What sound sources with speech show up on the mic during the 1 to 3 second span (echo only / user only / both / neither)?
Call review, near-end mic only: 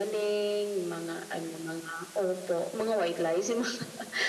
echo only